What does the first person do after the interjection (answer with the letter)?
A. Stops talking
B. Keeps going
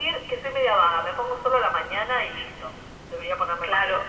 A